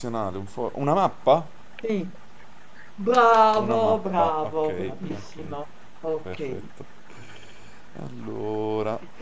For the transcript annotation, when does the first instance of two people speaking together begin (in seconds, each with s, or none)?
3.6 s